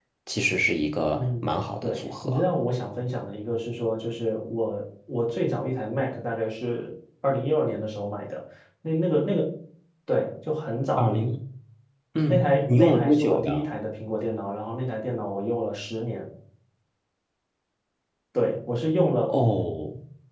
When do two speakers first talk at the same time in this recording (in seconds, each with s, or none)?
1.2 s